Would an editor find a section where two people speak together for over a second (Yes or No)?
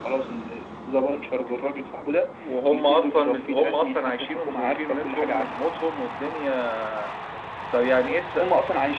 Yes